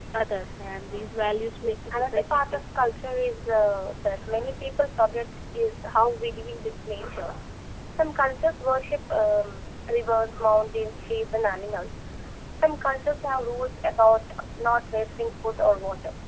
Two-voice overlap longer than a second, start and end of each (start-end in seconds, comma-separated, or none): 1.6-2.9